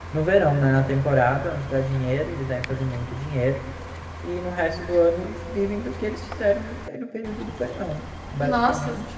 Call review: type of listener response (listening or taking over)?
taking over